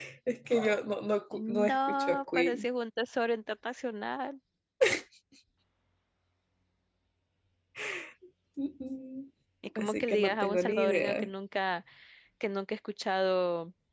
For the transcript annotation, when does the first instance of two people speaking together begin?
1 s

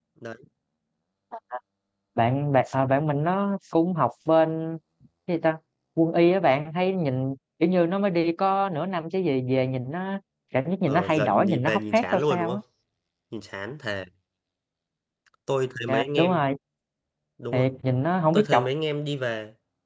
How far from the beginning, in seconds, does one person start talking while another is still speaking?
11 s

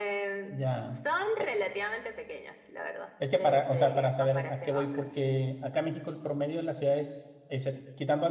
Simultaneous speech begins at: 3 s

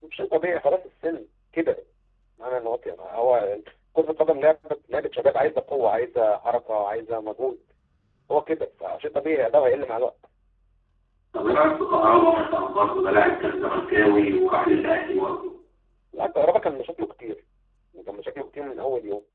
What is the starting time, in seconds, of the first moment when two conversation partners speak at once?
none

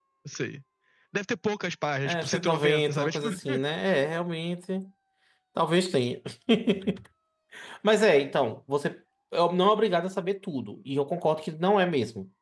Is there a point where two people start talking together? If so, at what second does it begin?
2 s

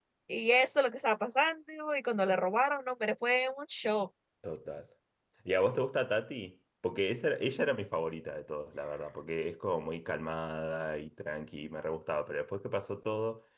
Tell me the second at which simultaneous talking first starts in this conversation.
none

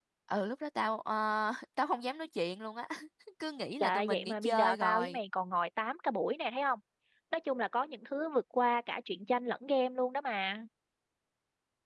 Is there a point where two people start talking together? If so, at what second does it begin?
4 s

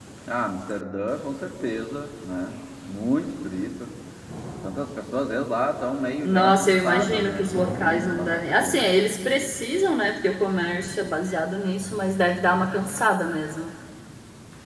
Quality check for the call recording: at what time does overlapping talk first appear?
6 s

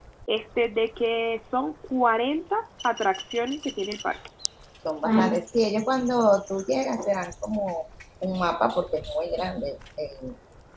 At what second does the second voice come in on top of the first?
none

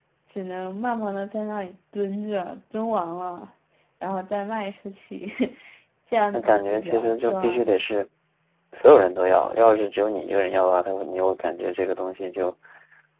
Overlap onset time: 6 s

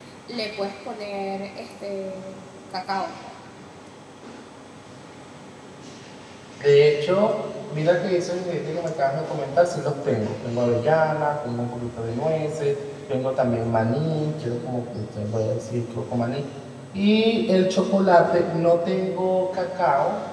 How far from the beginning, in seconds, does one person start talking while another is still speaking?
none

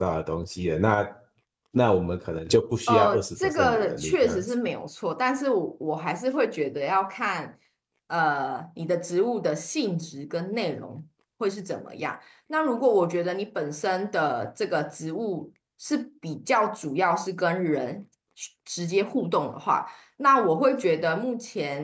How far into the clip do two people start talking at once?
3 s

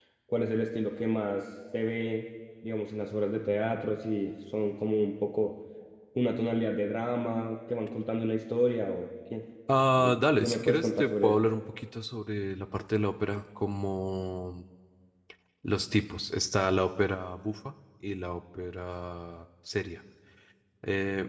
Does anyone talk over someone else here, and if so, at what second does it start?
10 s

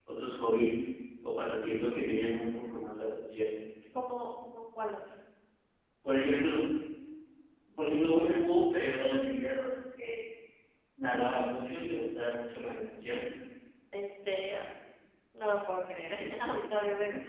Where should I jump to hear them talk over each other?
none

